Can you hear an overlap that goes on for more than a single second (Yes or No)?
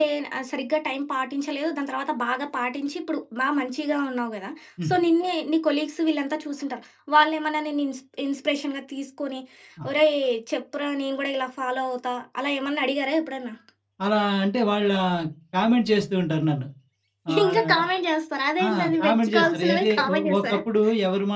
Yes